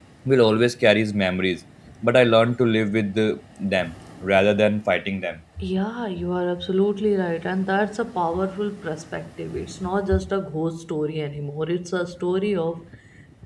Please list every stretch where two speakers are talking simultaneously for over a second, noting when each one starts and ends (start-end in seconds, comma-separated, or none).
none